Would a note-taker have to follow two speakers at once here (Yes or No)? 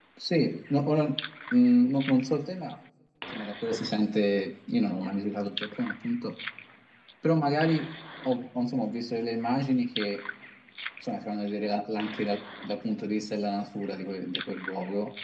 No